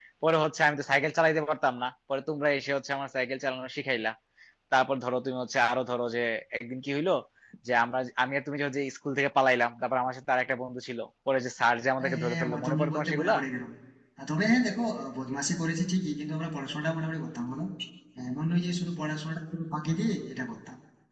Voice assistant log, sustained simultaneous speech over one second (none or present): present